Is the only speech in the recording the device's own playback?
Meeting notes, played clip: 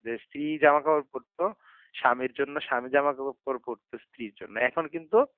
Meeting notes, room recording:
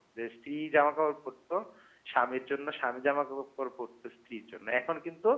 Yes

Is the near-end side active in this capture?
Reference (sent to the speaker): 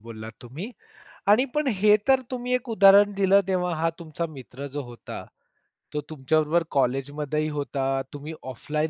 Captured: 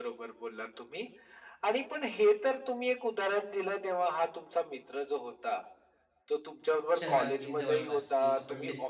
Yes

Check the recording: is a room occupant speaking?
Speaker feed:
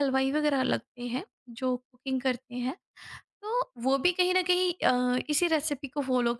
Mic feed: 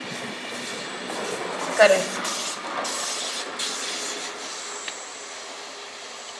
Yes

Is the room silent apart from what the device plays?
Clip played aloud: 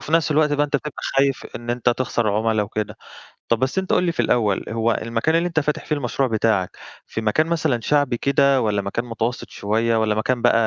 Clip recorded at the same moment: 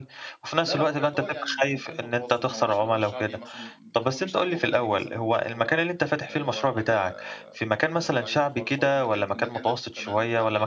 No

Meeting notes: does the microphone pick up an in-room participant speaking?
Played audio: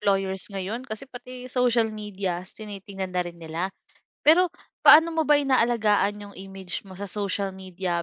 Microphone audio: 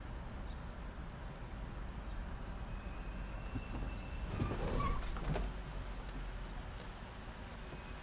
No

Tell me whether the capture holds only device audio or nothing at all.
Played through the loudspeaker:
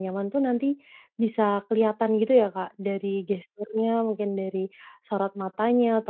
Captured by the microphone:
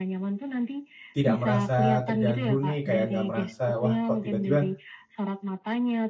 No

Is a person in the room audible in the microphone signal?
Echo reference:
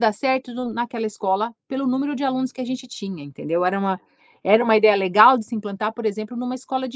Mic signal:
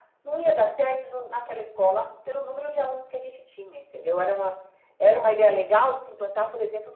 No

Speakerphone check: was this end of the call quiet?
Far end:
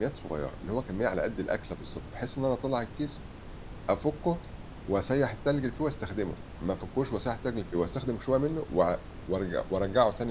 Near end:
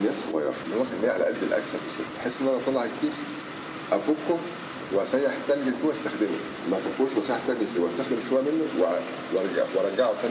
Yes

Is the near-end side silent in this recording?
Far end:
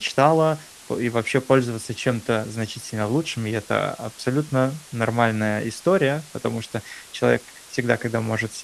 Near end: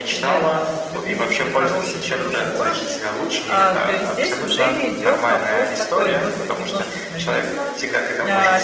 No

